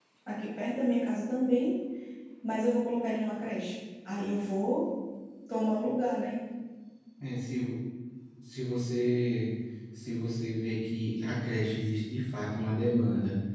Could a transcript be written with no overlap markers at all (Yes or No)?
Yes